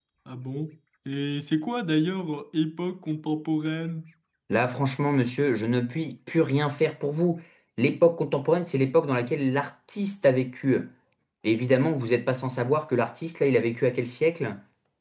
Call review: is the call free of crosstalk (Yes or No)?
Yes